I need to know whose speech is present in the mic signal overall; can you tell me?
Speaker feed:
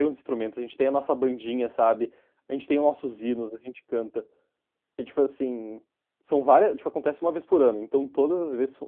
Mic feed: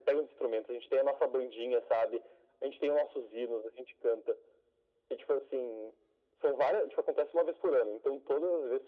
echo only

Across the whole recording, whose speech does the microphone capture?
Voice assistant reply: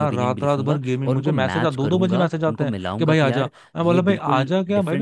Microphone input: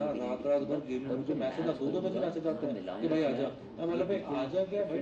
both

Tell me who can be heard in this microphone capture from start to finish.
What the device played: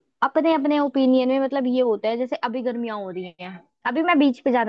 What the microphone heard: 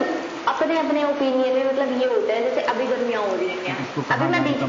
both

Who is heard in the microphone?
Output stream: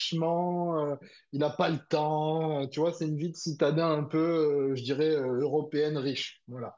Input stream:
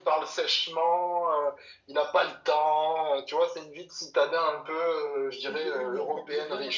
both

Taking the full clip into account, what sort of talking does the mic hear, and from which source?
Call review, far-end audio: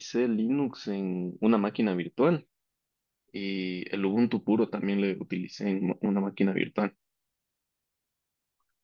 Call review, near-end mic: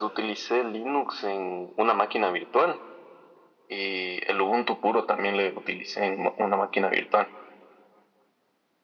echo only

